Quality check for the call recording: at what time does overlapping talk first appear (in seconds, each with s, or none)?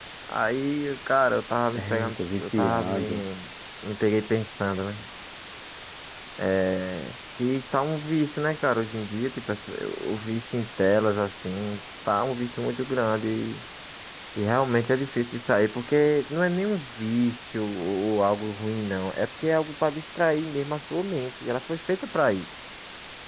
1.8 s